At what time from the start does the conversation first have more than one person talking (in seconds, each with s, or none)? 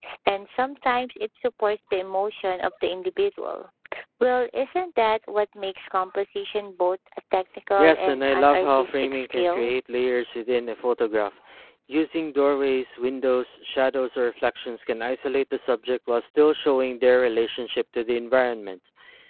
7.8 s